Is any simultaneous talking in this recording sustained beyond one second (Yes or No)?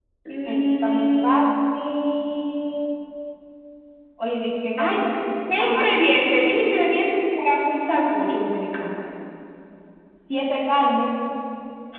Yes